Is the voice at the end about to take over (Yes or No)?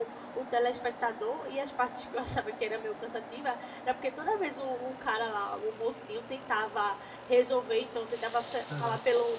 No